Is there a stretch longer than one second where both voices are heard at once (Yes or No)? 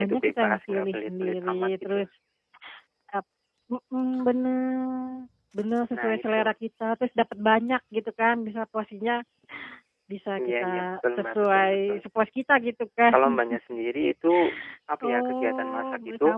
Yes